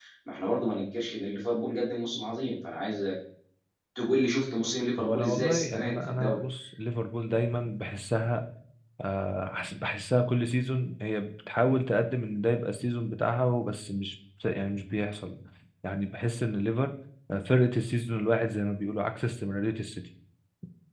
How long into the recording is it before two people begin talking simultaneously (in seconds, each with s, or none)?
5.0 s